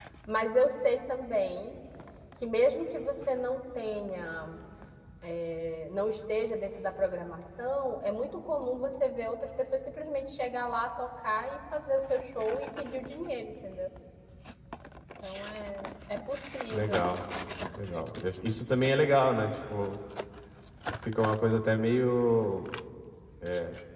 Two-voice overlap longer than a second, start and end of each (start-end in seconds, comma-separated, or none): none